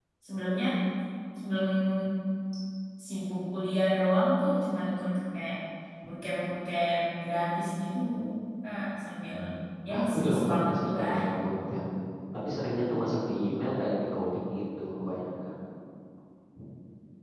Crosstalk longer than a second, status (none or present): present